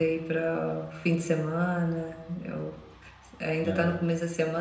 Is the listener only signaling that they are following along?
Yes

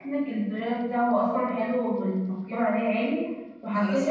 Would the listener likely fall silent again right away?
Yes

